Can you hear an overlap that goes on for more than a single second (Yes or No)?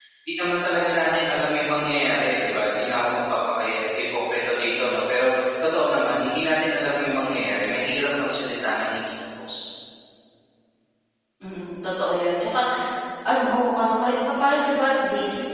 No